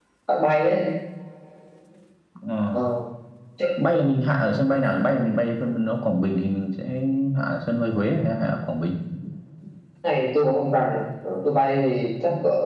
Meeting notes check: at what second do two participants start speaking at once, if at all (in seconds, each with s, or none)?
none